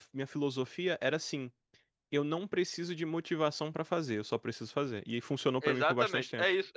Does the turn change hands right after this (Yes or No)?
Yes